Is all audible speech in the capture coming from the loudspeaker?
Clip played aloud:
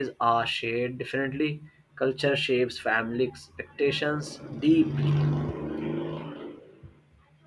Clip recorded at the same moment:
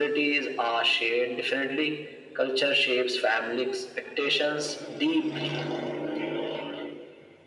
Yes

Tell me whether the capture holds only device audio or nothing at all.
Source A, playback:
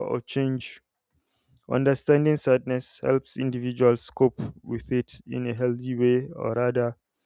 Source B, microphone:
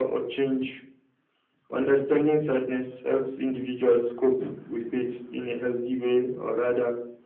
Yes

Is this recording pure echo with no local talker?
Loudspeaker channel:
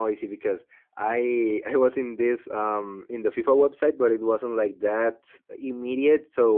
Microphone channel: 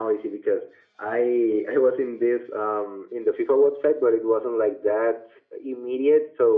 Yes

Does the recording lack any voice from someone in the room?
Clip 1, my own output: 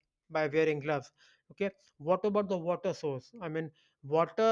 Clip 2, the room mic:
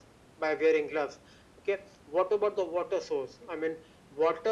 Yes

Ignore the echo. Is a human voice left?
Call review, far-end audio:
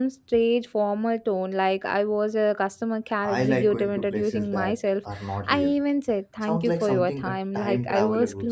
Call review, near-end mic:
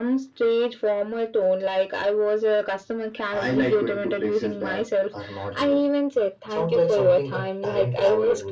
No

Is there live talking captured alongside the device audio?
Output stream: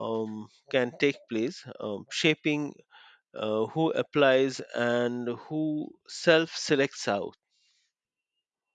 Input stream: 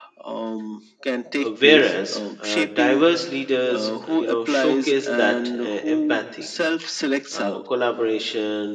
Yes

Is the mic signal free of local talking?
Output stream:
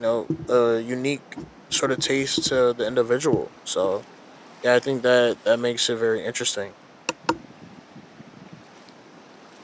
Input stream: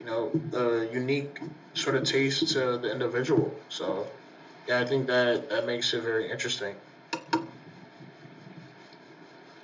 Yes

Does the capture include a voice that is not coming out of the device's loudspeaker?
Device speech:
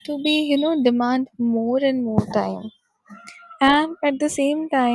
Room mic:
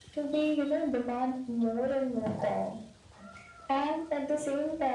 No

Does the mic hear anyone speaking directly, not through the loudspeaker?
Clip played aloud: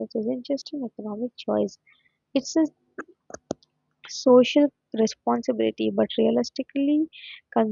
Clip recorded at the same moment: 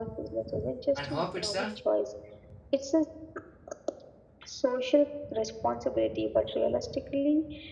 Yes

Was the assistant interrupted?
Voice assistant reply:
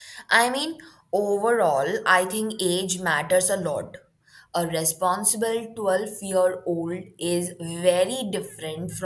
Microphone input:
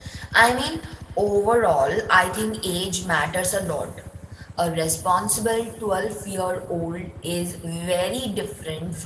No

